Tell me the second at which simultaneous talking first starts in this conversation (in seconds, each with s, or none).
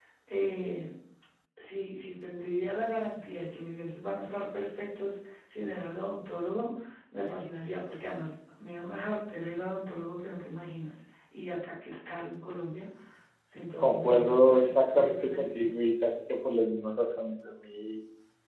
13.8 s